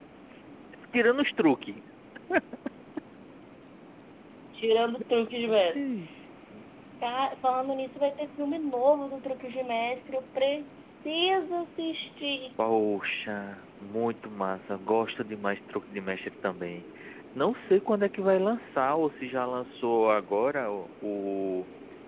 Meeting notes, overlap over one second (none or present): none